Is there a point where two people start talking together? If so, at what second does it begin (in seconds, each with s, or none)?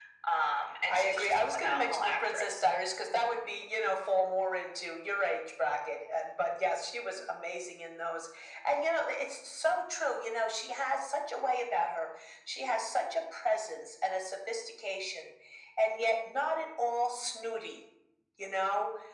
0.9 s